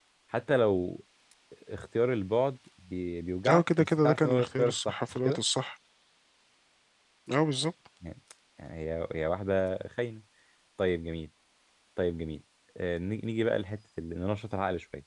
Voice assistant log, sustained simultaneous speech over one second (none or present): present